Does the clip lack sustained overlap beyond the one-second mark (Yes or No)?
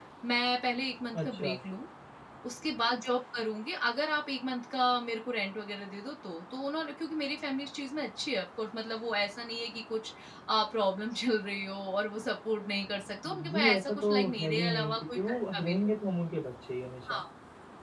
No